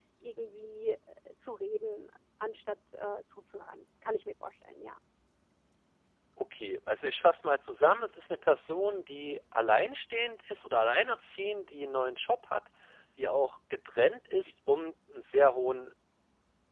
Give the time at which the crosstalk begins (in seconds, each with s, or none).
none